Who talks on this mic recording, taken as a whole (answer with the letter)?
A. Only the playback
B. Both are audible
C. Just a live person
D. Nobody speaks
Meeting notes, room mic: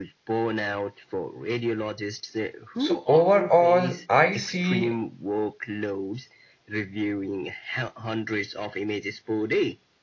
B